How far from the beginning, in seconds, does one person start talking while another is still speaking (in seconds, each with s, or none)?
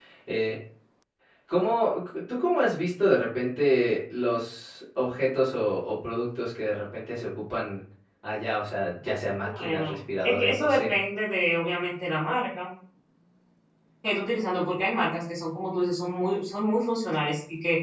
9.5 s